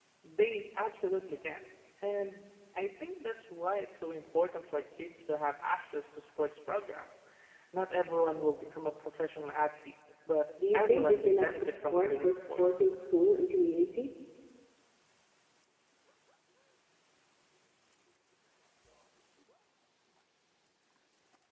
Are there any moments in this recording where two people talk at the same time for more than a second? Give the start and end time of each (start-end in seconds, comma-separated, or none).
10.7-12.9